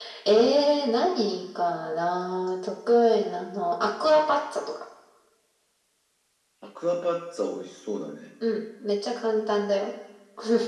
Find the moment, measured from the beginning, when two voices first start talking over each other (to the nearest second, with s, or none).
none